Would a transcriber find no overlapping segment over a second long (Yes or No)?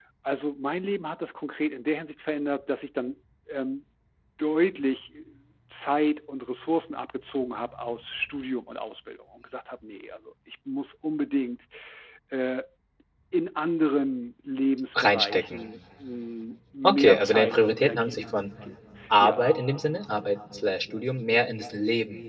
No